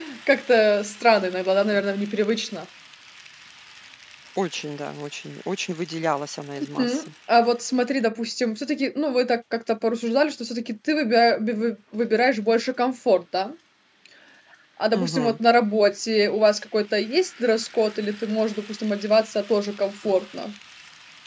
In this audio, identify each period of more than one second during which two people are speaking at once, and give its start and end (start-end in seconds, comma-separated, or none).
none